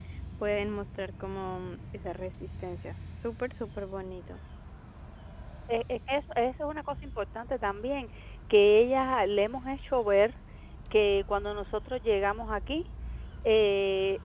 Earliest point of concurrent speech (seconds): none

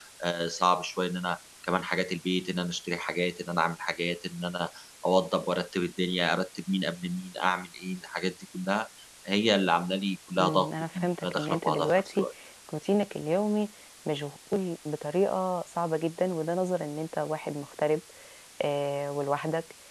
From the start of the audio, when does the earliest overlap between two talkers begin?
10.4 s

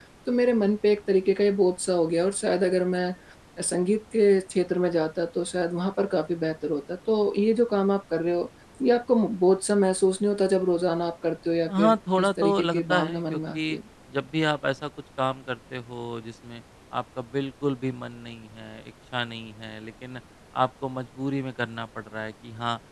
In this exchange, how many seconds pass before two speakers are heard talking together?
11.7 s

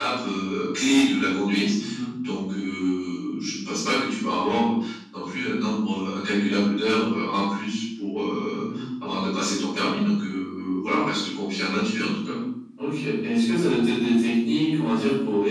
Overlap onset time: none

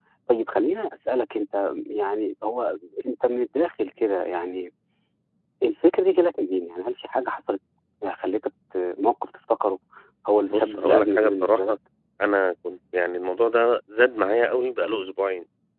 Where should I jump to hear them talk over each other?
10.5 s

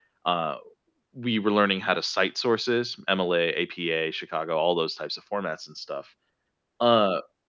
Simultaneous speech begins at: none

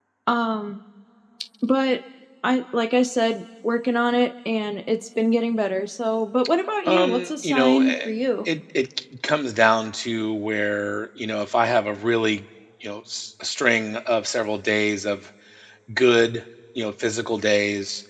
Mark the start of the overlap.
6.8 s

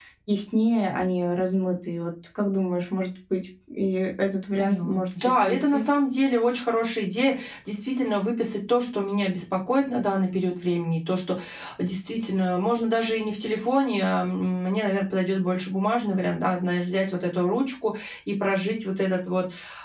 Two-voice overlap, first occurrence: 4.6 s

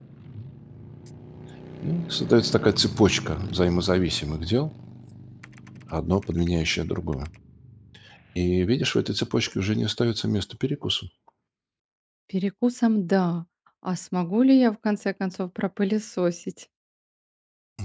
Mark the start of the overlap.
none

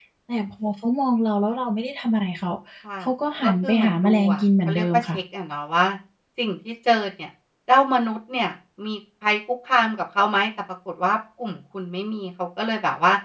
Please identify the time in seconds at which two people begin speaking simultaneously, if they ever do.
3.4 s

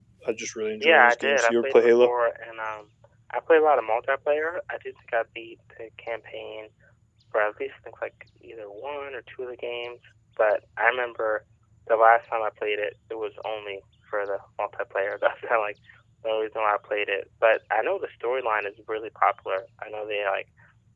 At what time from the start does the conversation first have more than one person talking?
0.8 s

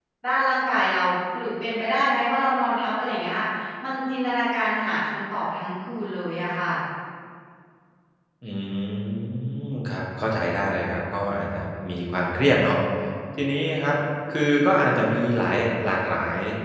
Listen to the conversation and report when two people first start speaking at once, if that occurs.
none

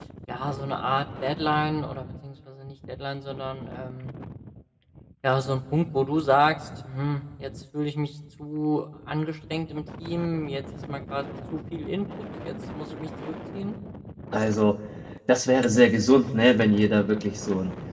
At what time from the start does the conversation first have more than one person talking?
none

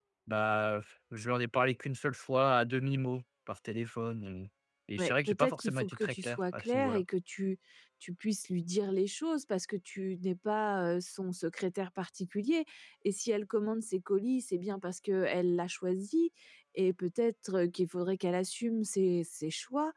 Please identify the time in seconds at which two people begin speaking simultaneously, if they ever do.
5.0 s

